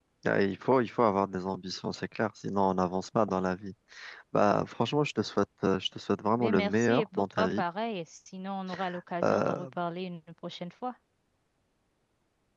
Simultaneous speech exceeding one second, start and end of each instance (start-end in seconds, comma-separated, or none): 6.4-7.6